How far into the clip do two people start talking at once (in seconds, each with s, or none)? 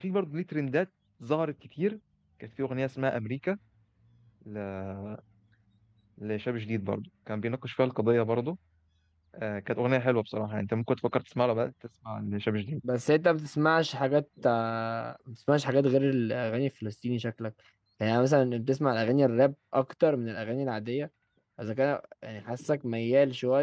none